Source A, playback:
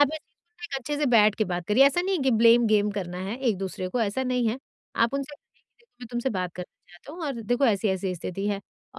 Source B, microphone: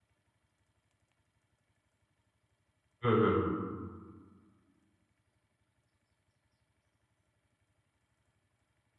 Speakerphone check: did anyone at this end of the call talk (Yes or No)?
Yes